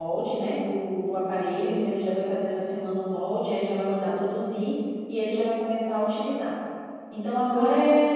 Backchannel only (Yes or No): Yes